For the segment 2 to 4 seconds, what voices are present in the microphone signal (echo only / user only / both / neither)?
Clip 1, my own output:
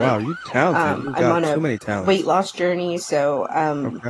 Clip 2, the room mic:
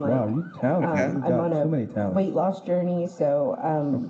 echo only